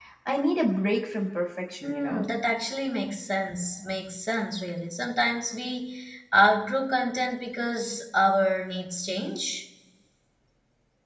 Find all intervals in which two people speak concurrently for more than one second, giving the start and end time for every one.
none

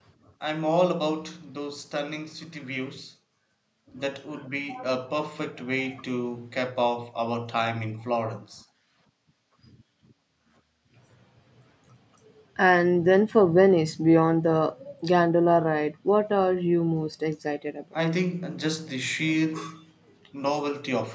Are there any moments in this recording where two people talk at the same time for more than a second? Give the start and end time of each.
none

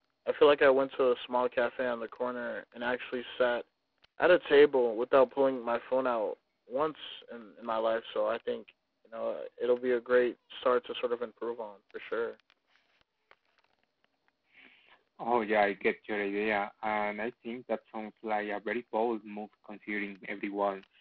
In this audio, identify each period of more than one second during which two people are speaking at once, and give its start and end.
none

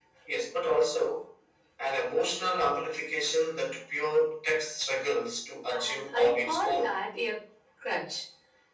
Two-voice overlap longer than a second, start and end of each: 5.7-7.0

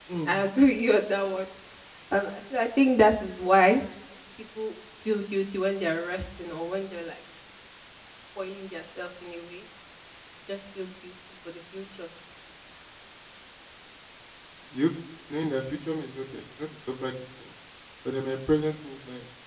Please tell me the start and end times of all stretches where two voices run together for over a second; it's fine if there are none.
none

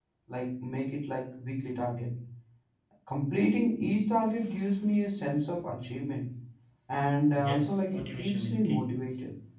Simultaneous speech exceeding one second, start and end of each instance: 7.4-9.0

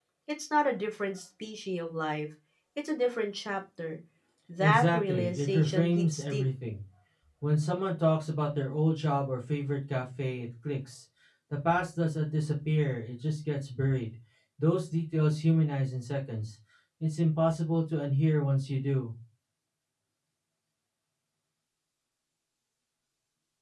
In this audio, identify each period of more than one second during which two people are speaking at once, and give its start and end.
4.6-6.4

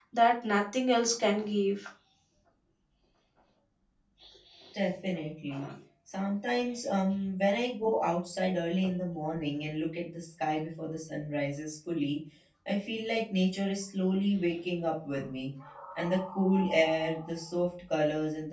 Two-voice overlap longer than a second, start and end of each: none

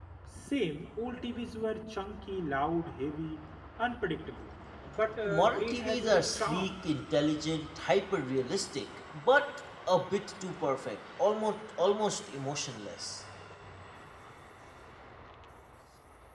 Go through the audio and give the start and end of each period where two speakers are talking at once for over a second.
5.2-6.7

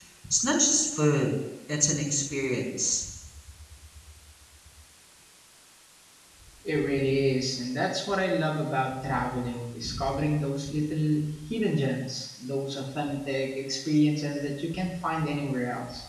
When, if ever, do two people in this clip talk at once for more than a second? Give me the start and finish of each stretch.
none

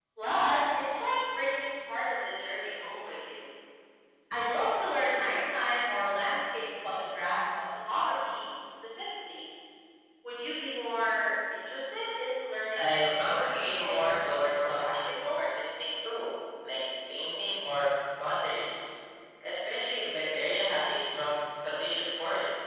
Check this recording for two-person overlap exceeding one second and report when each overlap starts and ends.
12.8-15.4

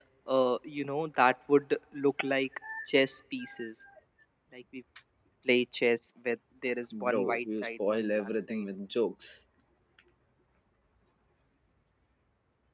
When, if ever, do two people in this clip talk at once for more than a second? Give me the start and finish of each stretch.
7.0-8.6

